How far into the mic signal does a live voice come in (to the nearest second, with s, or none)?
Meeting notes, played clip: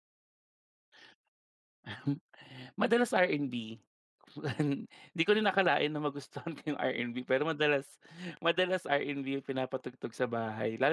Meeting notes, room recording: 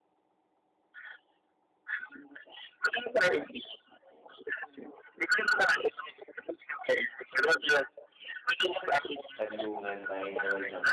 9 s